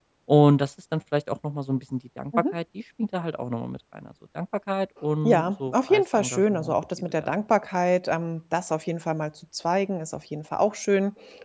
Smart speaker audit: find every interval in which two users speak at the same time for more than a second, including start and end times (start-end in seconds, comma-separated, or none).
5.2-7.3